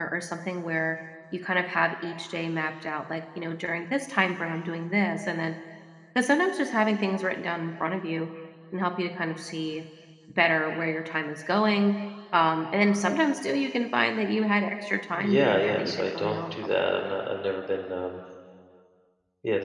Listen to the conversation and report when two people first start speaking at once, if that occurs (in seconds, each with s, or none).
15.2 s